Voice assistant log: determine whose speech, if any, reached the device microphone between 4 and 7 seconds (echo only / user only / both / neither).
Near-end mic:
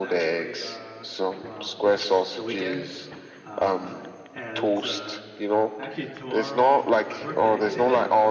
both